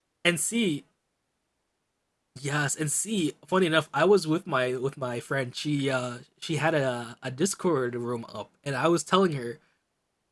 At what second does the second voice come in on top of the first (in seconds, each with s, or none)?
none